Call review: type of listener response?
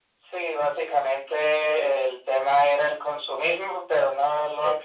listening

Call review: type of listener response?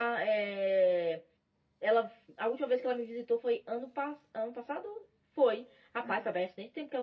listening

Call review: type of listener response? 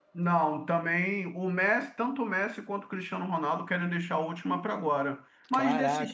listening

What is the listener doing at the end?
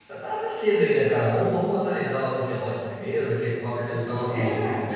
listening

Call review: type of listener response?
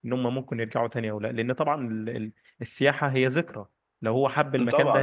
taking over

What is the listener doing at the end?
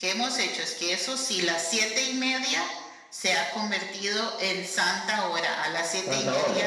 listening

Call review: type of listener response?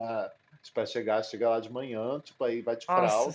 listening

